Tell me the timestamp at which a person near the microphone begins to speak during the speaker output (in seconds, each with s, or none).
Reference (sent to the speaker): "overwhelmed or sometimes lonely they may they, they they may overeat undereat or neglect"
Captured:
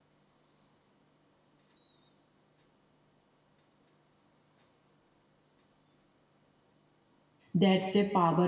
7.5 s